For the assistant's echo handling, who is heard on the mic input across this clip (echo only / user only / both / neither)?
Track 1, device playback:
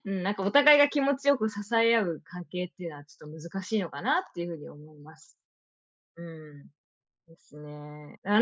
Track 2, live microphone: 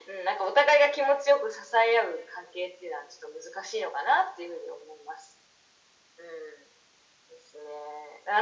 echo only